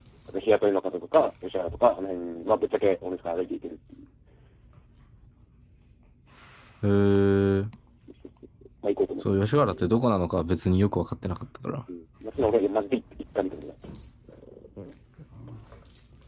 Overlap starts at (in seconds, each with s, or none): none